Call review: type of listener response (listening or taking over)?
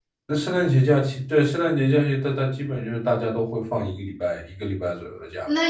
taking over